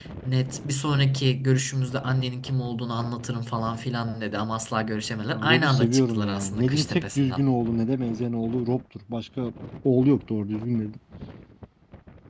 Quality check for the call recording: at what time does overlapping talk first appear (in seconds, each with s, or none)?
5.3 s